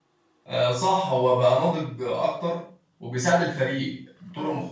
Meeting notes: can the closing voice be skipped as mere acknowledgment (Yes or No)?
Yes